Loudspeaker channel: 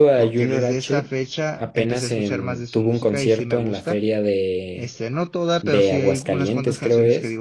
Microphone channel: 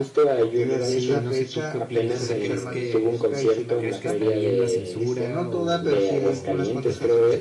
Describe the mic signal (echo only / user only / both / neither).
both